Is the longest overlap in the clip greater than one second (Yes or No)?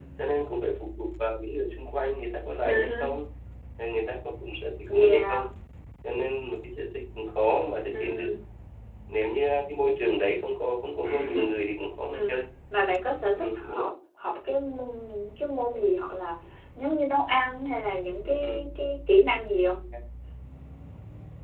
No